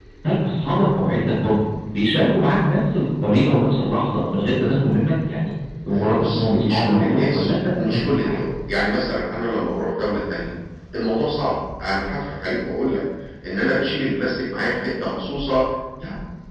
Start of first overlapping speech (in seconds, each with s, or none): 5.9 s